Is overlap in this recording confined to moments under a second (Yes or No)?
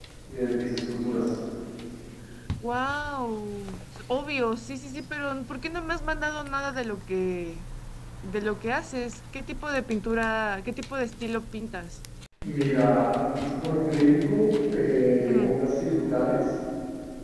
Yes